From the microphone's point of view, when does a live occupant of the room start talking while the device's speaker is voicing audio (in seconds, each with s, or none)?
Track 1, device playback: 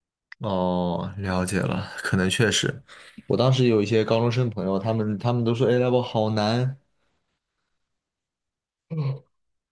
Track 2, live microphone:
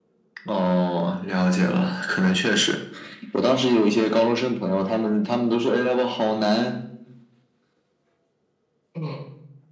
none